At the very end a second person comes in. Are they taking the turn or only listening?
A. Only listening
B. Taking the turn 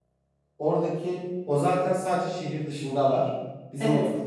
A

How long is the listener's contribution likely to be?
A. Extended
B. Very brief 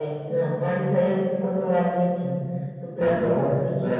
A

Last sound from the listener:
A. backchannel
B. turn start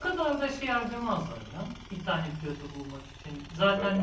A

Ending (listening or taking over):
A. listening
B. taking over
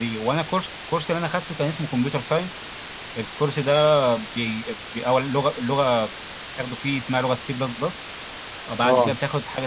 A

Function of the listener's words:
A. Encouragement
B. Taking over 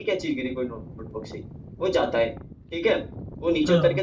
A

